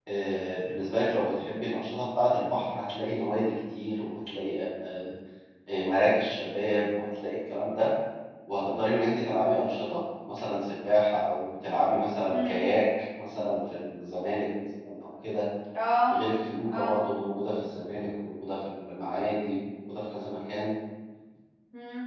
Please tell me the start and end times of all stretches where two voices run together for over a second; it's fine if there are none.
none

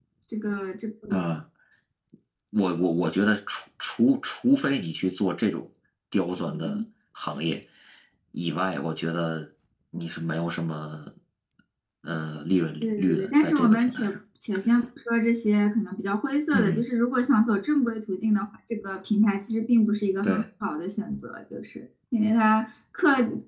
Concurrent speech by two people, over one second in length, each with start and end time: 12.8-14.2

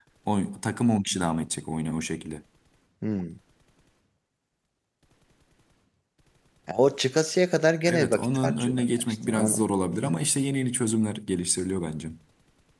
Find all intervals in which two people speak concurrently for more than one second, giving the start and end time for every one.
7.8-9.6

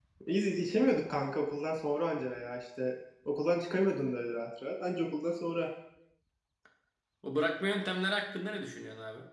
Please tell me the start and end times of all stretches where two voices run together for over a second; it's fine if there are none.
none

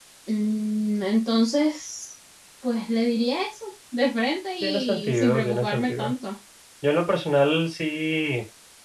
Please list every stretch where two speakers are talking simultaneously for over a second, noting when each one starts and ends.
4.6-6.1

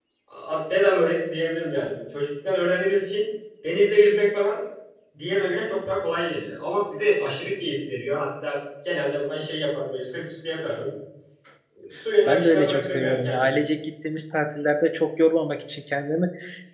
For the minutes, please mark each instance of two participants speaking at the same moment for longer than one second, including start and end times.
12.2-13.6

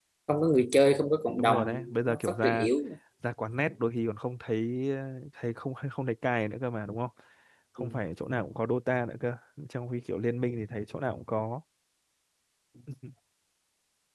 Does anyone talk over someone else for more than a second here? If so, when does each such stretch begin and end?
1.4-2.7

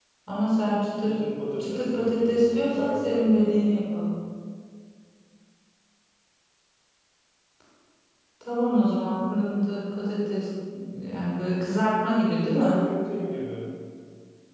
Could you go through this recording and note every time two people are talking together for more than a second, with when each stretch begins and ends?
1.6-3.6

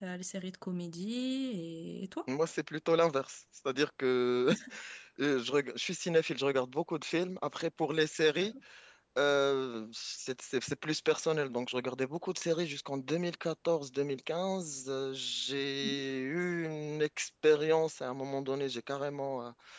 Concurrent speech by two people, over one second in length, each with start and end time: none

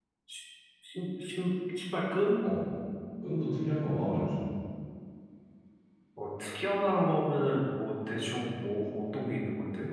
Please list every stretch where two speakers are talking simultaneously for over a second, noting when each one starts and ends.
none

